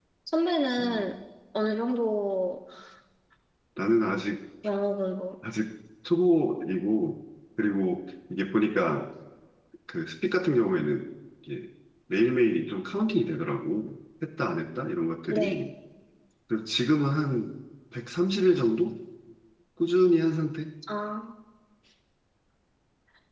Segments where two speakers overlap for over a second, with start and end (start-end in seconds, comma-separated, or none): none